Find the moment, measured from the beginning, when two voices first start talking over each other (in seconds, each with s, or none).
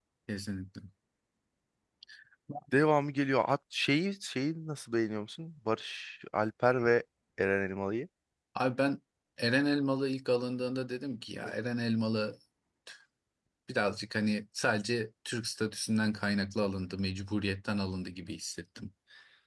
none